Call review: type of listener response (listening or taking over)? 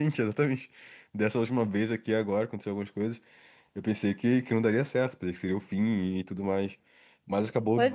taking over